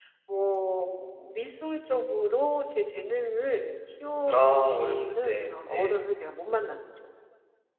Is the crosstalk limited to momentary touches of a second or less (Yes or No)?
No